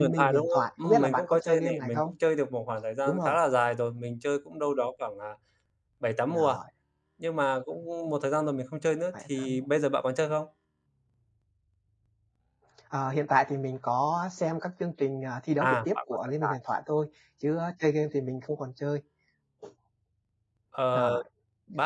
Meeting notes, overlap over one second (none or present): present